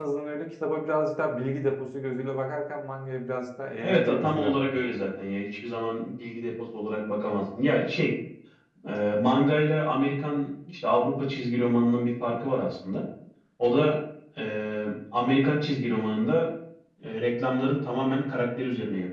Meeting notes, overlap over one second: present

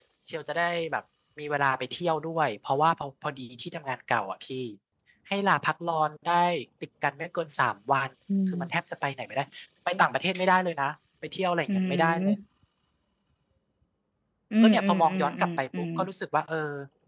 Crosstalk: present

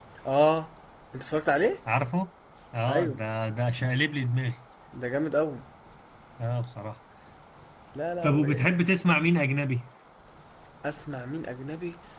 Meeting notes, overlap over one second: none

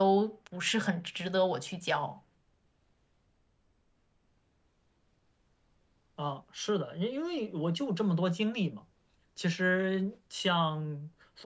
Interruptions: none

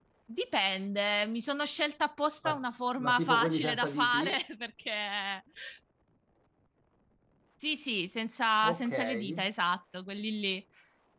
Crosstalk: present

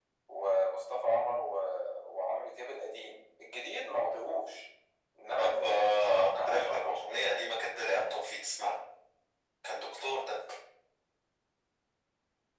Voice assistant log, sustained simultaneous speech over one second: present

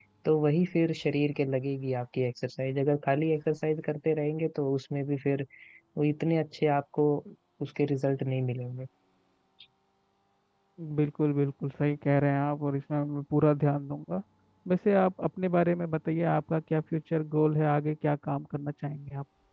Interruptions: none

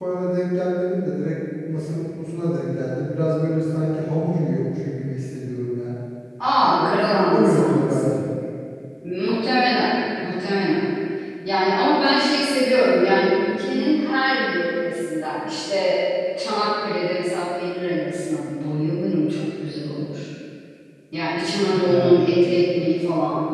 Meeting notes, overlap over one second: present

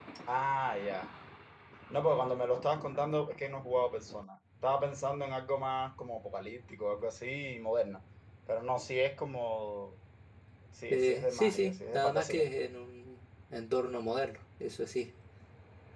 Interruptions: present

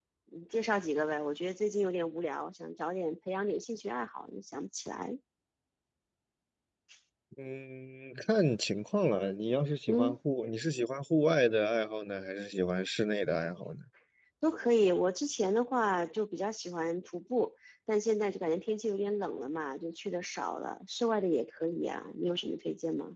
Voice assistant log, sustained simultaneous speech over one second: none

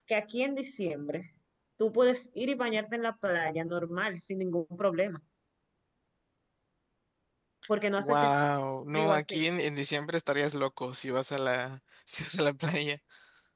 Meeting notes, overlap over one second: none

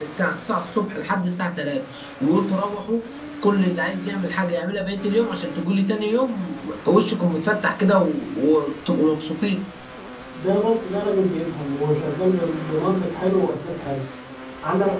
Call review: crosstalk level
none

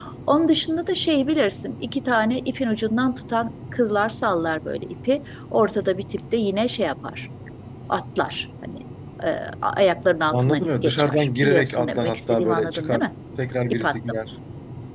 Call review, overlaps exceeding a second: present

